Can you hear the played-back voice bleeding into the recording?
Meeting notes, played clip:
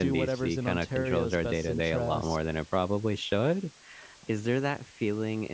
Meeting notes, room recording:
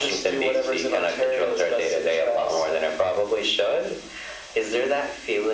Yes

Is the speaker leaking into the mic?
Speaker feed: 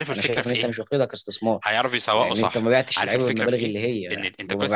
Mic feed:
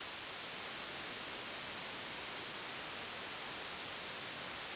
No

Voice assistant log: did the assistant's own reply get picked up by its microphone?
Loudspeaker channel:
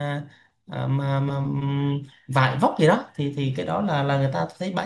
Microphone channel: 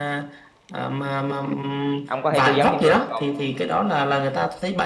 Yes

